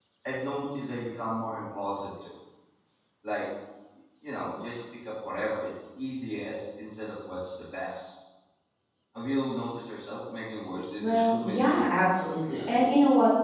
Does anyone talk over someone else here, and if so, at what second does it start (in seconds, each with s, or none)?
11.0 s